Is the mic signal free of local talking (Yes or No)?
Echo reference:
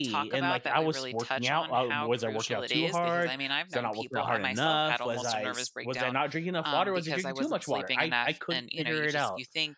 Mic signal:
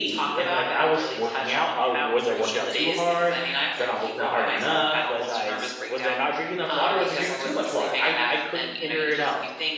Yes